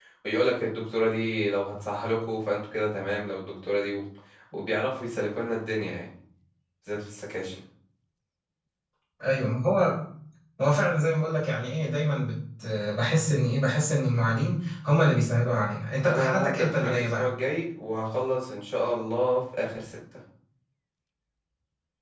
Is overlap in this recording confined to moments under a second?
No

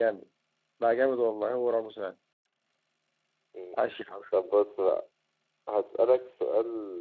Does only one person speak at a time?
Yes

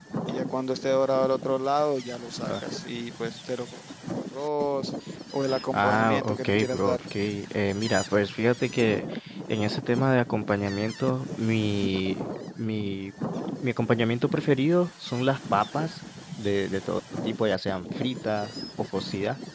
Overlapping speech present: Yes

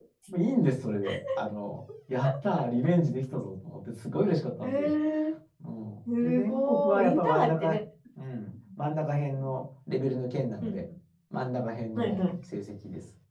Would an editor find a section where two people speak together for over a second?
Yes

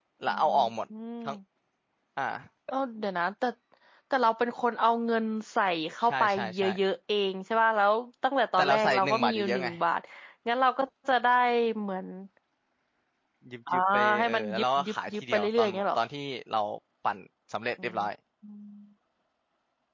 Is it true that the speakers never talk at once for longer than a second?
No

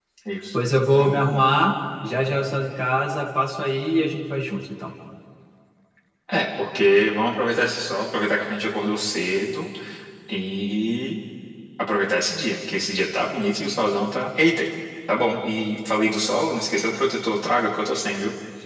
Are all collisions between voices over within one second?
Yes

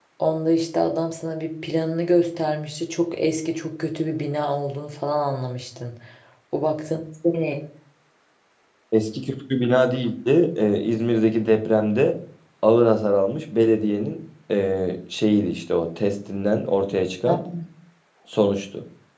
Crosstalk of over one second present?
No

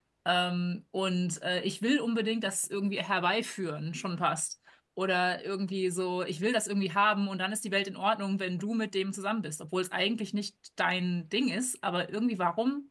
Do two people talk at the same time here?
No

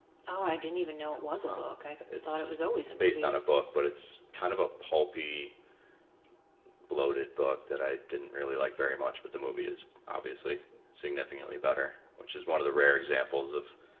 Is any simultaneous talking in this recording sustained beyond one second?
No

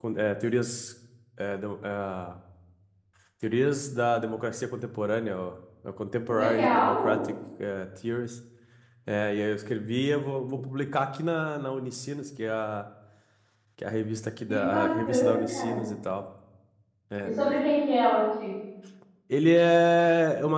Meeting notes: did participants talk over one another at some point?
Yes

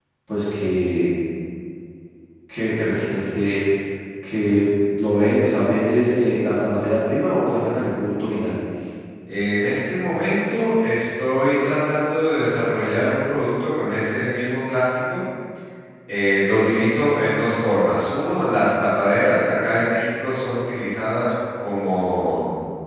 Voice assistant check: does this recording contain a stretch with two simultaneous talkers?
No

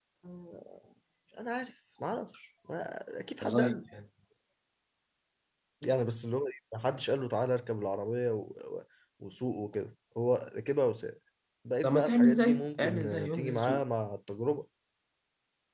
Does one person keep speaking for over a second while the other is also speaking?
Yes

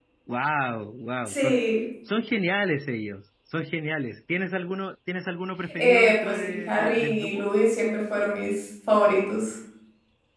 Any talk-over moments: Yes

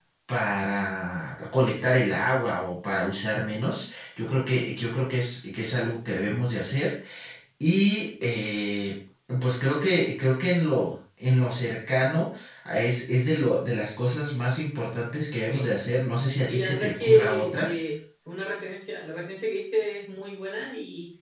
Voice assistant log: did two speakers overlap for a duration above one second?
Yes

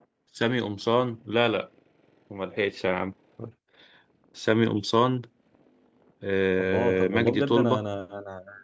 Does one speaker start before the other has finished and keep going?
Yes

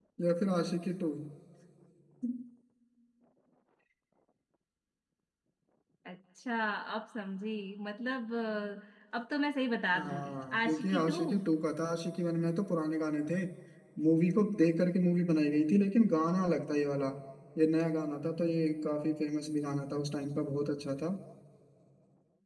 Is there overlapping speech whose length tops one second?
Yes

